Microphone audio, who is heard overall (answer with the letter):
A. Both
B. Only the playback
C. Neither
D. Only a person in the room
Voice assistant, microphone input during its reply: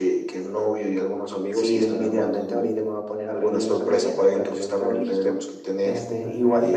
A